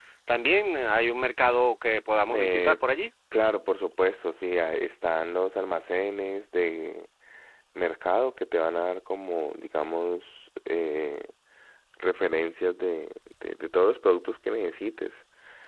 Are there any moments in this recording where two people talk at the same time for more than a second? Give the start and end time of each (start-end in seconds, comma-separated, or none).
none